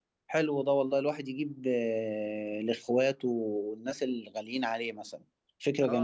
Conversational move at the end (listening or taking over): taking over